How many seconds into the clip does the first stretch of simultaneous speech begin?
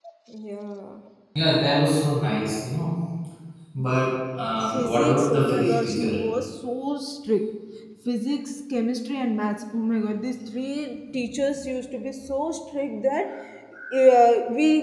4.7 s

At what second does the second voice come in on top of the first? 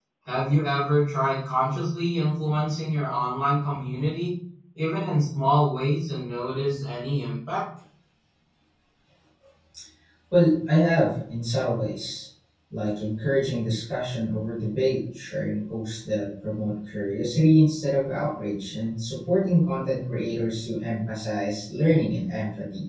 none

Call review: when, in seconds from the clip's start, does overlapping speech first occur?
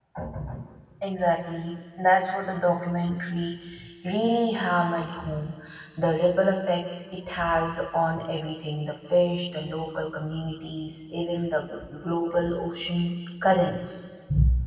none

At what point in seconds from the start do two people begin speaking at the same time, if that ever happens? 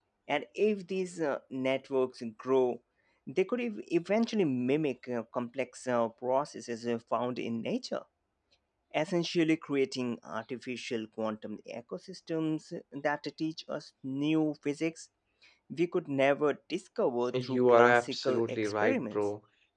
17.3 s

